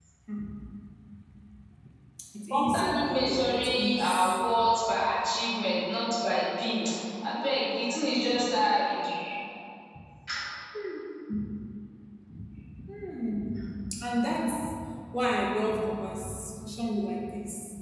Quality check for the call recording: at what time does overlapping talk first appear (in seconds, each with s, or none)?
2.5 s